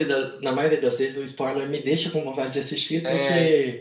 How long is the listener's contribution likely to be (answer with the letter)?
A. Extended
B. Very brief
A